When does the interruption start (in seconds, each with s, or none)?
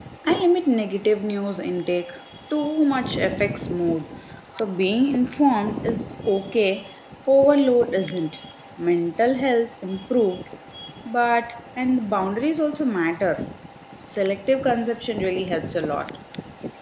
none